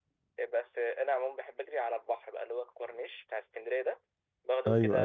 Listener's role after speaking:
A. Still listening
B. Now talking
A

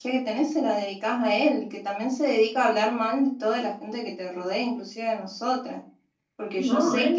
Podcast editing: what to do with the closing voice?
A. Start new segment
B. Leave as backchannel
A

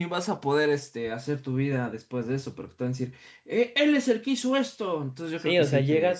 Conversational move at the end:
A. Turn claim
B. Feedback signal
A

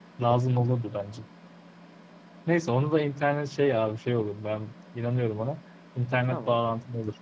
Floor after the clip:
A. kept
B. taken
A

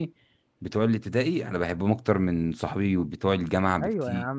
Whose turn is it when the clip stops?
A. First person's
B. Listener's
B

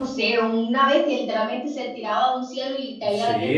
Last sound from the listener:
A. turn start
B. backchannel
A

